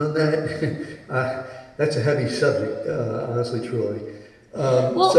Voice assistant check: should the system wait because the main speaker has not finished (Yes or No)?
No